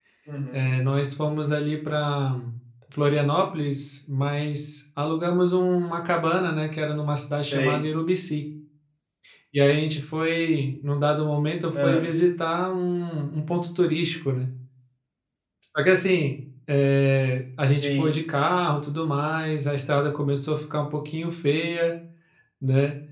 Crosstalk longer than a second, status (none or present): none